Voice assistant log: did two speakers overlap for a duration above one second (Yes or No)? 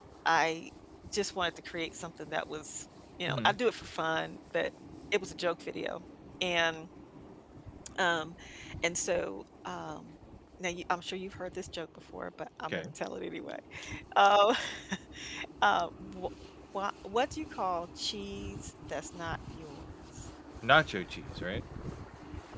No